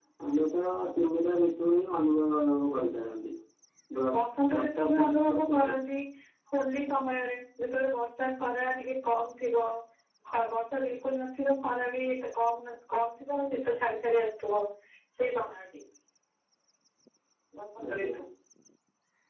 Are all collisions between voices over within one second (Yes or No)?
No